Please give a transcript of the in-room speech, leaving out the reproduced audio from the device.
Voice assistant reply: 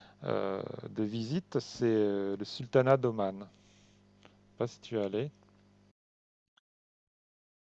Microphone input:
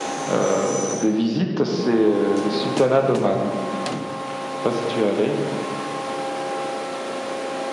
none

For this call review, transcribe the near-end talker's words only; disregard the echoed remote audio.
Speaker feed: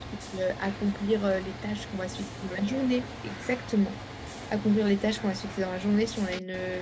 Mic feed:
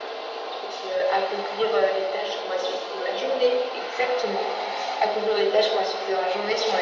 none

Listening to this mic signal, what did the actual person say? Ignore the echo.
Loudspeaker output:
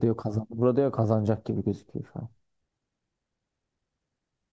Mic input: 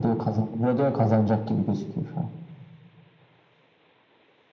none

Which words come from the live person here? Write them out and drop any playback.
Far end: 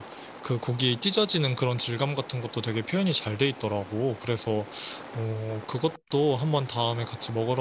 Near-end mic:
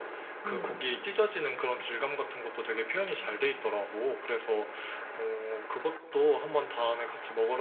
음.

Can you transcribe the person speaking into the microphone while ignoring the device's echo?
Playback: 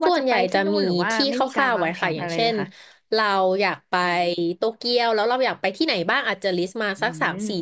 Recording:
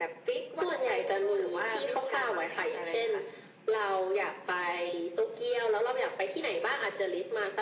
none

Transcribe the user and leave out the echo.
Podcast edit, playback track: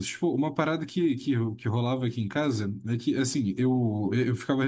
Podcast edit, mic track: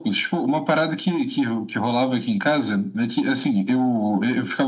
none

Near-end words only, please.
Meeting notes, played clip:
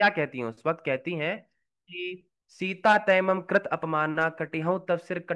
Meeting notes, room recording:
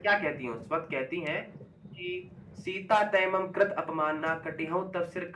none

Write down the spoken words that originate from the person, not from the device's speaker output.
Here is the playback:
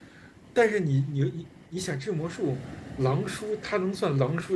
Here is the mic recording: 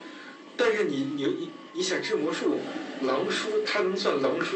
none

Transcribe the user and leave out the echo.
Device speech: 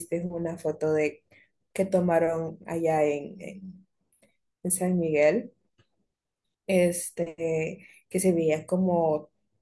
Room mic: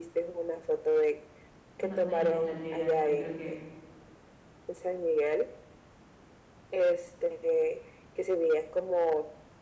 No, no llames la desgracia, creo que

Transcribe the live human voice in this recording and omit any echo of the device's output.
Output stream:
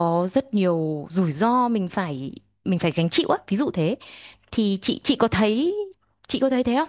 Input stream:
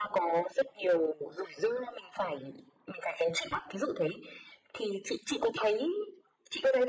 none

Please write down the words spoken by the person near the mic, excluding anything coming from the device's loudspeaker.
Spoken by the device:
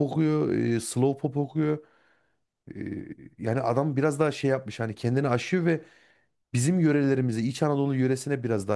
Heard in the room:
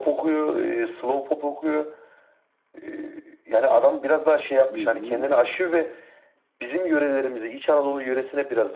Hı hı.

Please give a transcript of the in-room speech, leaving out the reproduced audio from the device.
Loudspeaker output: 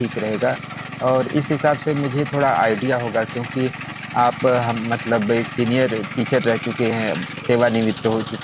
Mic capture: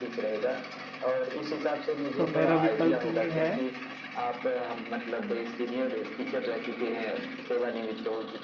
तो मेरा विकल्प ये है

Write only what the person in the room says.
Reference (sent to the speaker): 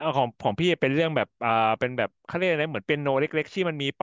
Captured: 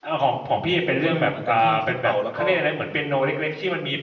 ผมก็ลืมเหมือนกันที่ที่เป่าแล้วก็

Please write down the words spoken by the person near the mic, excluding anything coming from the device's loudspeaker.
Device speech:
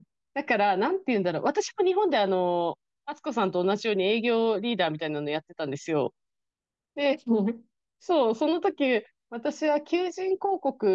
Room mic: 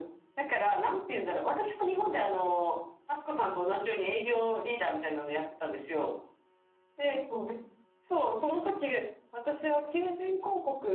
none

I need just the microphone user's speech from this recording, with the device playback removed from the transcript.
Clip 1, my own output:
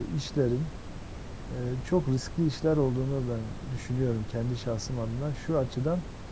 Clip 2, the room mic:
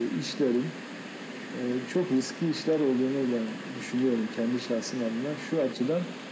none

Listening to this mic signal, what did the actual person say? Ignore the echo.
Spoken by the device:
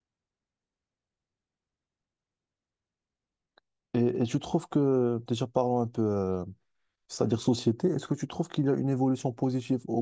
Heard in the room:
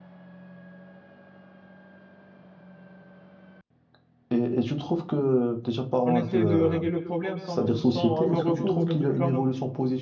on essaie de régler le problème sans, sans avoir recours aux médicaments.

